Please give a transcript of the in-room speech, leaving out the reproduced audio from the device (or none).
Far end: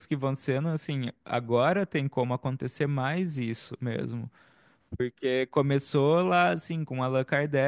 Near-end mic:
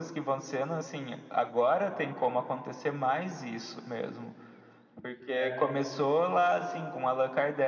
é,